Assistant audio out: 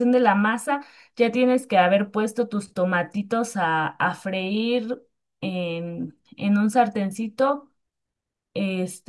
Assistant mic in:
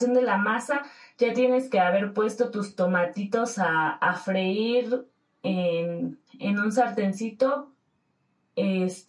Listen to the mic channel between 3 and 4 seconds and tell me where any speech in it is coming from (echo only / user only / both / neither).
echo only